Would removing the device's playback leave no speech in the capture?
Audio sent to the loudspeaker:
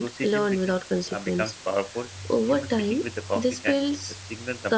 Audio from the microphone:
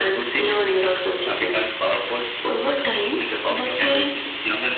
No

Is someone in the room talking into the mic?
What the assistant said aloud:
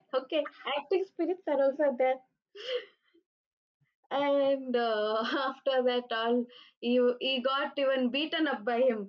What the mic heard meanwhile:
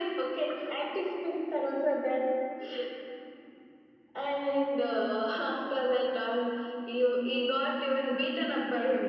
No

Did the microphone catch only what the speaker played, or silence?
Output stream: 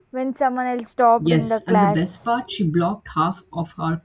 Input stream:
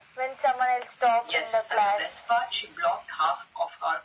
Yes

